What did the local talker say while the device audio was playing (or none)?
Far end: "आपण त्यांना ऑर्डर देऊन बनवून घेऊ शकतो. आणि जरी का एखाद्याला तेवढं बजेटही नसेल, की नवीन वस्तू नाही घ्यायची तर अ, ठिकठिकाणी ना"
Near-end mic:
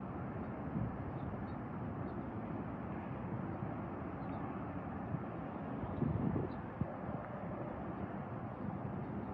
none